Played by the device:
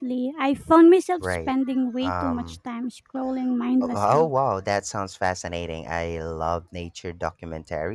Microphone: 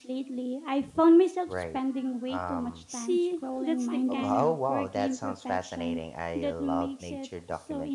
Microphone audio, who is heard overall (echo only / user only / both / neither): both